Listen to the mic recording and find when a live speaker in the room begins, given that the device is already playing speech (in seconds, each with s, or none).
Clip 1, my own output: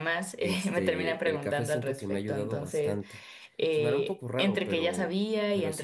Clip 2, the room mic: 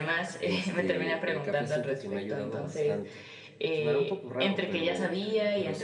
none